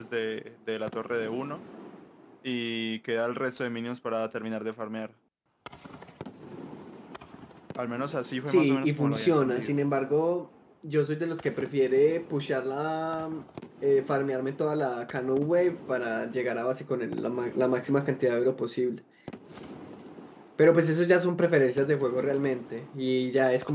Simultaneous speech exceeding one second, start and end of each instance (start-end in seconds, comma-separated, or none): 8.5-9.8